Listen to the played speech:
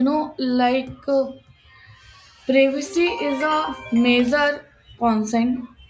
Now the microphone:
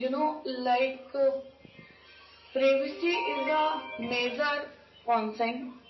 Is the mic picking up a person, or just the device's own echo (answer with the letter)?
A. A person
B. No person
B